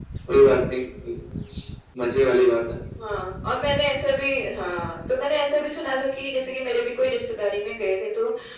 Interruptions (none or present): none